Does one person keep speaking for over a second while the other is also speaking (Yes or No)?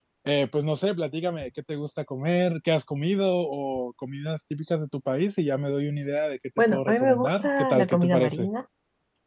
Yes